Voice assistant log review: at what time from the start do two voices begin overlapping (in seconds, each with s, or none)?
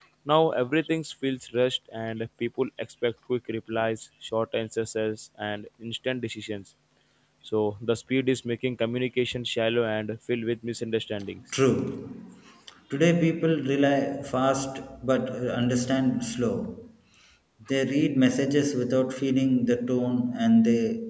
none